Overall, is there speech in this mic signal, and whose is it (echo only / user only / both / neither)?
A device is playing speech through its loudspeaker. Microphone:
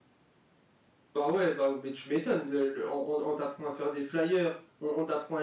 user only